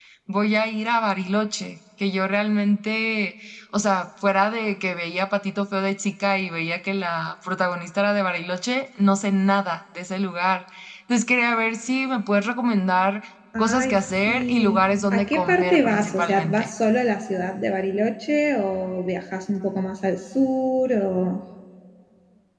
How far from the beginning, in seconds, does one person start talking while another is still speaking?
13.6 s

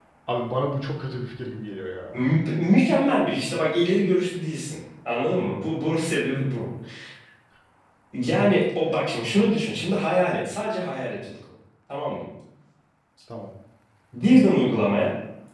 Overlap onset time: none

